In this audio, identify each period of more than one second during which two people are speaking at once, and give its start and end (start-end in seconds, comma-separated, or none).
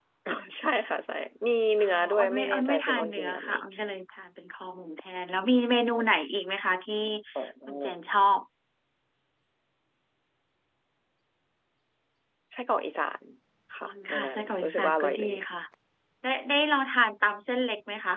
1.8-3.5, 13.8-15.3